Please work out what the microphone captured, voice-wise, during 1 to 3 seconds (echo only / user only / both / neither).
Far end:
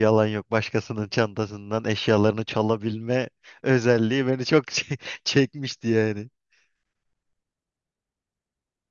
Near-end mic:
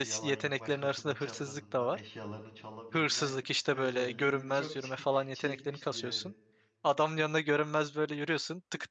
both